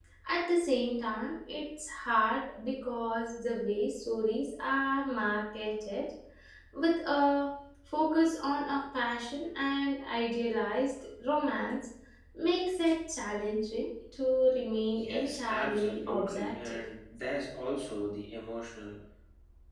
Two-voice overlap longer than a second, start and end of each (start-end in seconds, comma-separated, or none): 15.0-16.8